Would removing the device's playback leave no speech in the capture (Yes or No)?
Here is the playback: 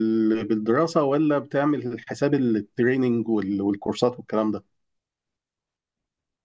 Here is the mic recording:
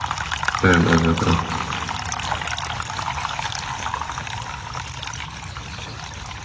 No